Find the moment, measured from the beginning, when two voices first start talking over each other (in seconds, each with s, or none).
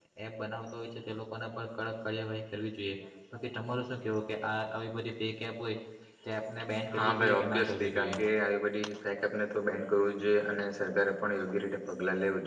7.0 s